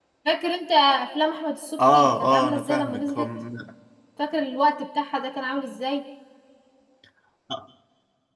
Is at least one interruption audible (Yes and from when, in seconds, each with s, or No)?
Yes, from 1.8 s